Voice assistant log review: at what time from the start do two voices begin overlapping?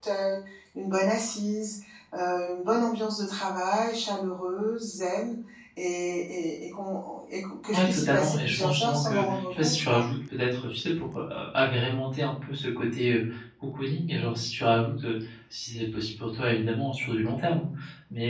7.7 s

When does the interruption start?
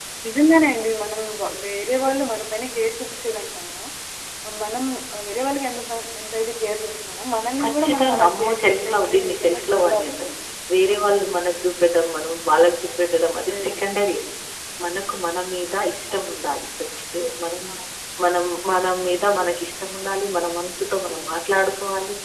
7.6 s

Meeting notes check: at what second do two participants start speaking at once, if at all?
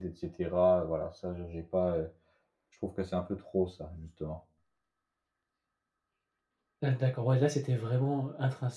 none

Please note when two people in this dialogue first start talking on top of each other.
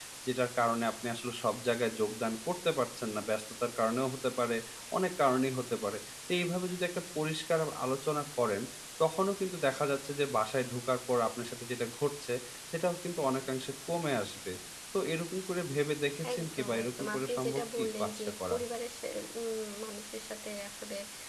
16.2 s

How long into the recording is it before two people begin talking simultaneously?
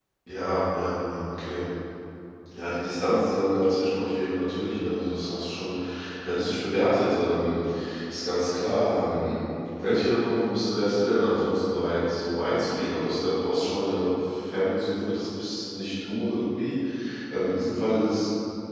none

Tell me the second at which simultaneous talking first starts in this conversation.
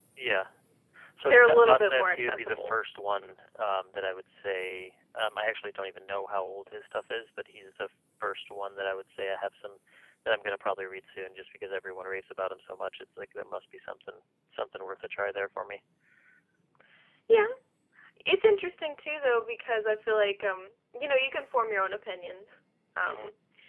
1.3 s

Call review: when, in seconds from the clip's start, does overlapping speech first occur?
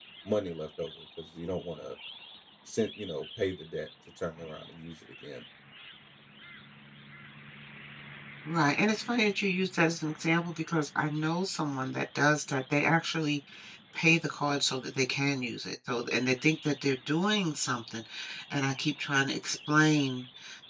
none

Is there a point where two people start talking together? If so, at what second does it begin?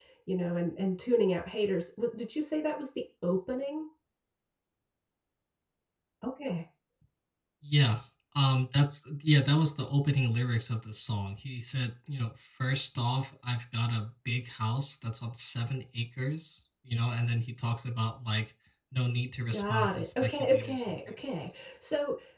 19.5 s

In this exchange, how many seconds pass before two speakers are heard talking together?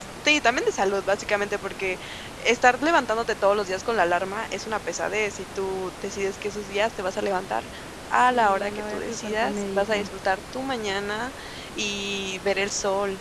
8.3 s

